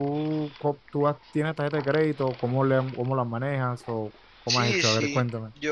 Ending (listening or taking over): taking over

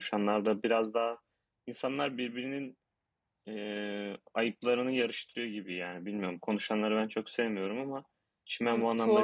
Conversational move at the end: taking over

